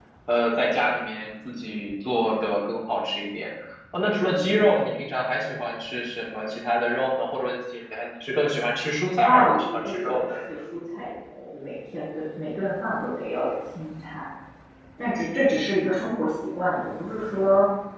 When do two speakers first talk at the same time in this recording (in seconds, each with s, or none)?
9.2 s